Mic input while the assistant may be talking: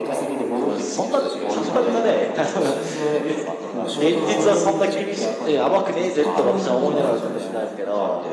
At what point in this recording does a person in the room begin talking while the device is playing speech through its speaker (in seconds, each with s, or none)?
0.6 s